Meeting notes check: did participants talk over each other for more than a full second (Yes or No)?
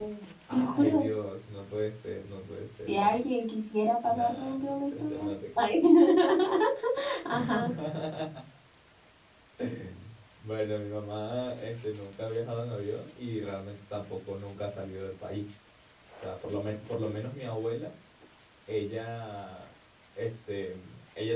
Yes